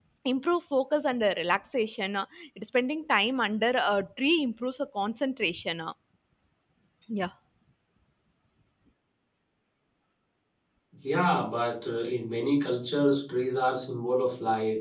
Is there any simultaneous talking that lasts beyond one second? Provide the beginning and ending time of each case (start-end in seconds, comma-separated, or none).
none